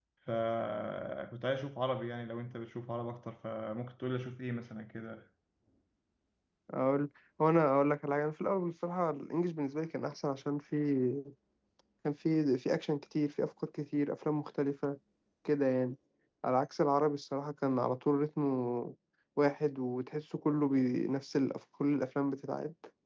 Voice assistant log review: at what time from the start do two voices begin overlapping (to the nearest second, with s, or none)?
none